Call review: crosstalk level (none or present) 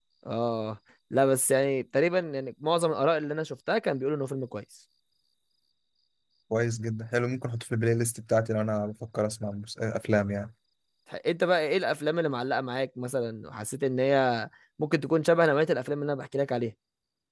none